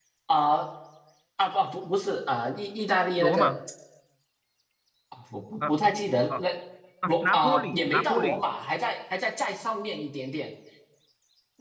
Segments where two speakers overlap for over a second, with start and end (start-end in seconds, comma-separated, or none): 7.1-8.4